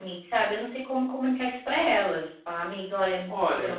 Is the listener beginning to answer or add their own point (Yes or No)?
Yes